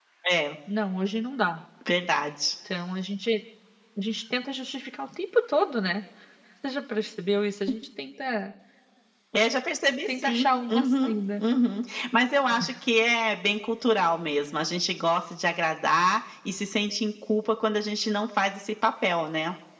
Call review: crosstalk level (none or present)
present